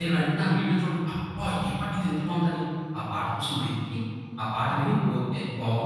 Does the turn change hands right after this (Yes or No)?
No